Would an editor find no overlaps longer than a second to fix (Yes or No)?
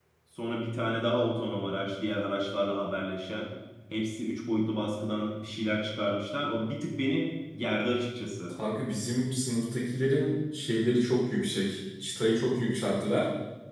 Yes